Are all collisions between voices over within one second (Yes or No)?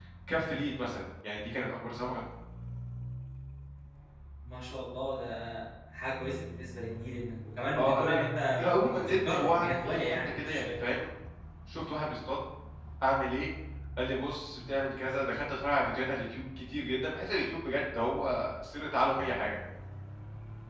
No